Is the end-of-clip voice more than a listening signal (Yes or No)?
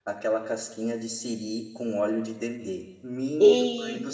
No